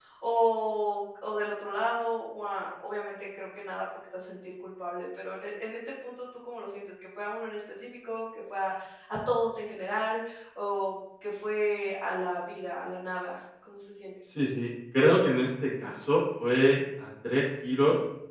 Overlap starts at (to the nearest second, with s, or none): none